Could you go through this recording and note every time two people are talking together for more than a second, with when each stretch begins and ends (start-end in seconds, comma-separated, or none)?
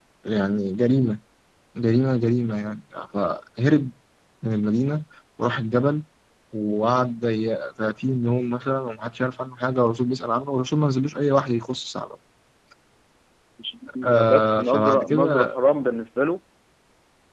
14.0-15.6